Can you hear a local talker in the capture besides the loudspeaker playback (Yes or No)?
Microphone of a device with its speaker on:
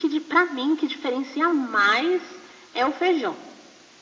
No